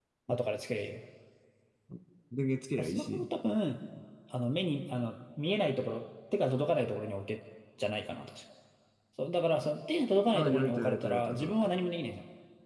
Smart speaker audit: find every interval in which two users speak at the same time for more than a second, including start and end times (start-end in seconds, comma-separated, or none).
10.3-11.8